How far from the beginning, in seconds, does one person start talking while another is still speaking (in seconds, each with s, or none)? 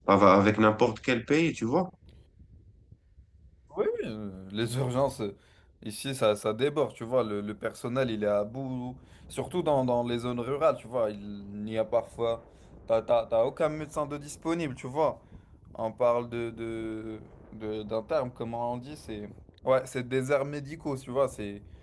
none